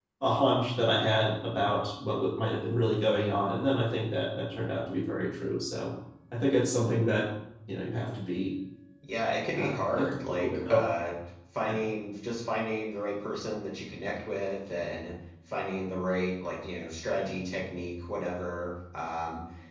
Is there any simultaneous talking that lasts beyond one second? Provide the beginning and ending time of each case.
9.6-10.8

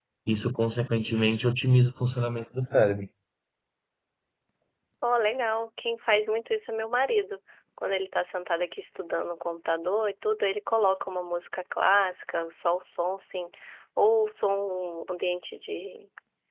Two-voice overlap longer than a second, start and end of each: none

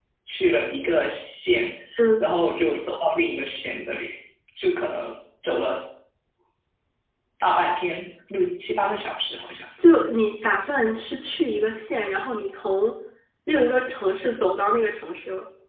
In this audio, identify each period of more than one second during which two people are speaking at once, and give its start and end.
none

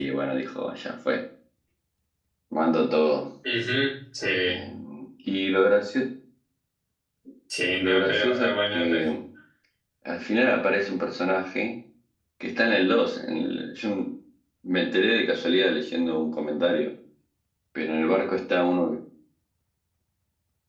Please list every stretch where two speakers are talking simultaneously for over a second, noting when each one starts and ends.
7.8-9.1

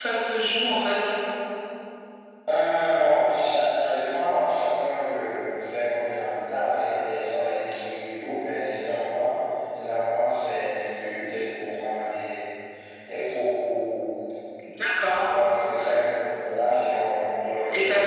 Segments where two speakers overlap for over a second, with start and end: none

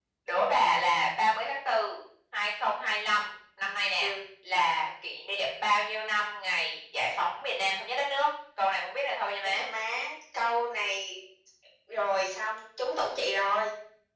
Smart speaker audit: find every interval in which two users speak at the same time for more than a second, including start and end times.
none

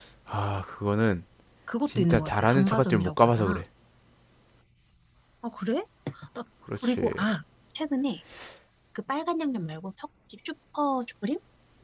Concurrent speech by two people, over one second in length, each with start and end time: 1.9-3.6

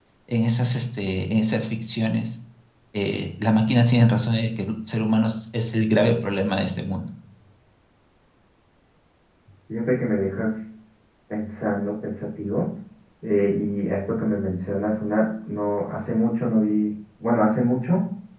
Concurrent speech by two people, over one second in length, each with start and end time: none

